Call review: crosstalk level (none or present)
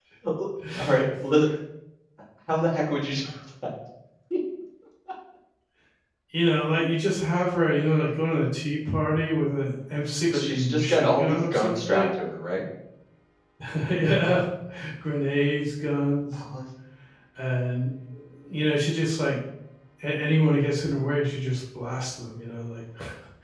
present